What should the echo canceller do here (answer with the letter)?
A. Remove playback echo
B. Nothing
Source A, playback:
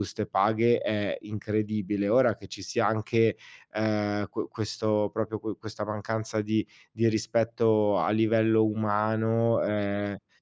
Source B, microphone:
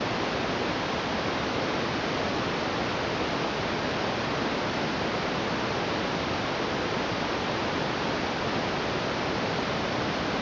B